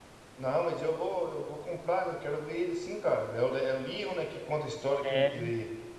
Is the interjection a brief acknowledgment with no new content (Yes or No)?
Yes